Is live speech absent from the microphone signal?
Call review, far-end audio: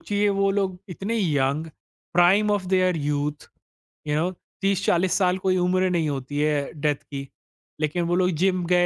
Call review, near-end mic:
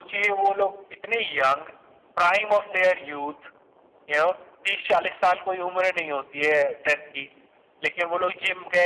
Yes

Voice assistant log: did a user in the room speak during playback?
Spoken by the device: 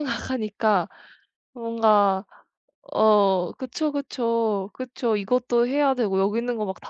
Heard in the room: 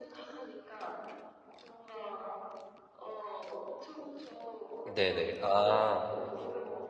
Yes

